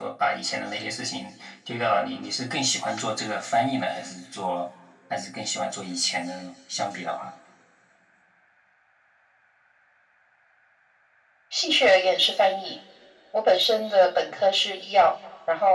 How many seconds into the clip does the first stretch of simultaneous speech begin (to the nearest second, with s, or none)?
none